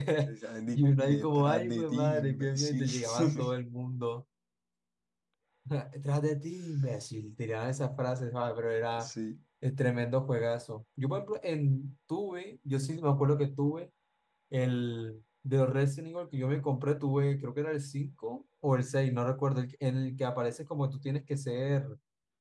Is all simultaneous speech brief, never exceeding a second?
No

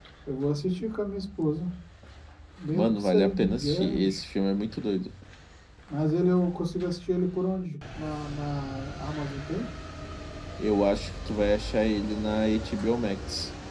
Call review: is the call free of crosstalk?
No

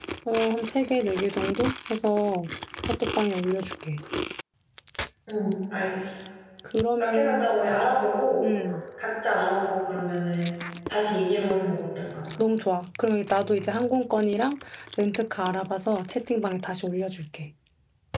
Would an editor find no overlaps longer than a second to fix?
Yes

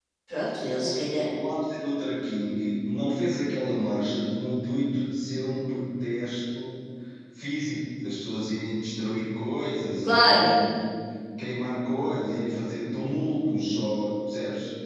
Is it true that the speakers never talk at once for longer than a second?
Yes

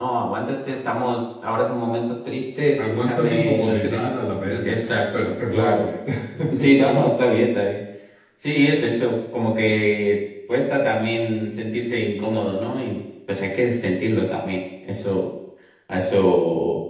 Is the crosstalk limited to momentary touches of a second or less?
No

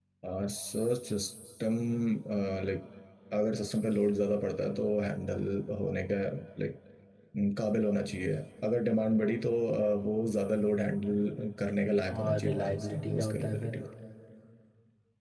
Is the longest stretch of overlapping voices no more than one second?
No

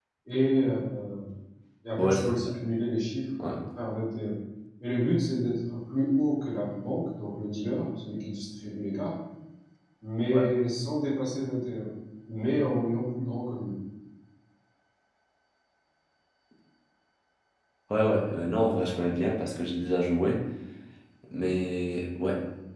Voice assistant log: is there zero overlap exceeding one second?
Yes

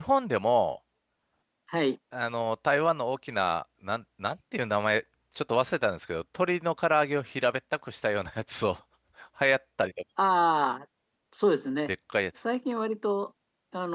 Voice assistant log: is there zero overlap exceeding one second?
Yes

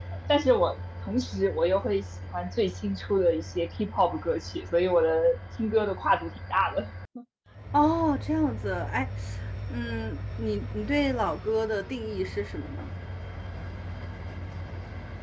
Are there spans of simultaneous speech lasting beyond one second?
No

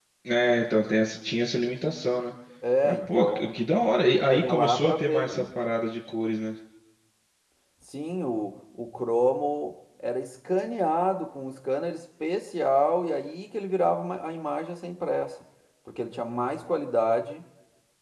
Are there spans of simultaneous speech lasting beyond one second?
Yes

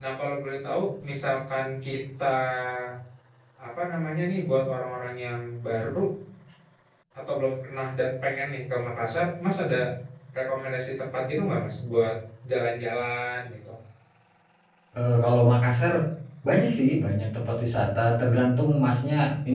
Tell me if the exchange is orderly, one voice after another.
Yes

